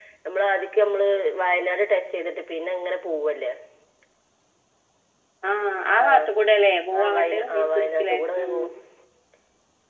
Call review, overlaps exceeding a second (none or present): present